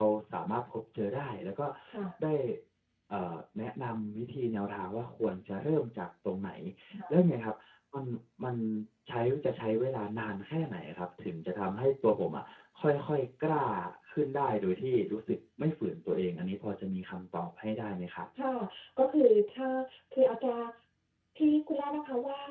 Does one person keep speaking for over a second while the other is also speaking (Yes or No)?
No